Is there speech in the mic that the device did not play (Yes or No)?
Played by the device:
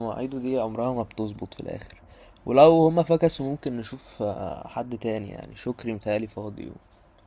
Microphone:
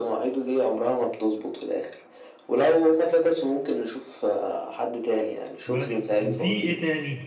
Yes